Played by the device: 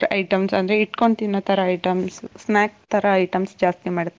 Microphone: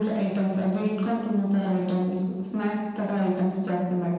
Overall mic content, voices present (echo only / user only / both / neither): echo only